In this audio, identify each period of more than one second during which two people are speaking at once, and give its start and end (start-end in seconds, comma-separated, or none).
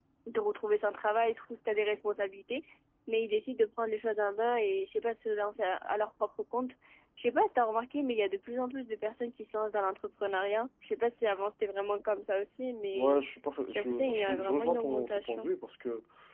13.7-15.5